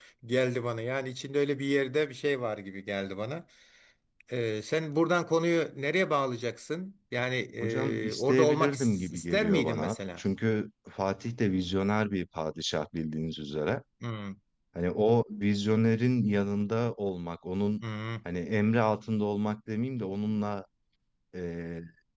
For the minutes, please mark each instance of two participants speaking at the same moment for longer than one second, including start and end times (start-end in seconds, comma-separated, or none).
7.6-10.2